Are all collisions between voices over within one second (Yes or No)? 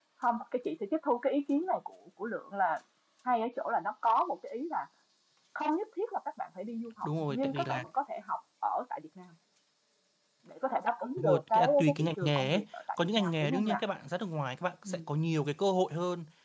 No